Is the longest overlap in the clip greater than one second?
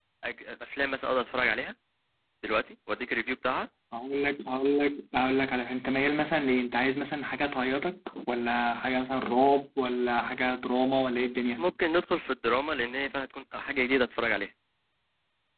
No

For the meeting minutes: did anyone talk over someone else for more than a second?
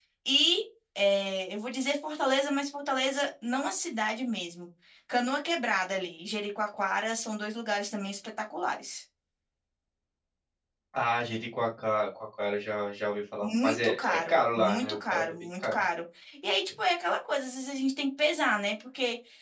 Yes, from 13.4 s

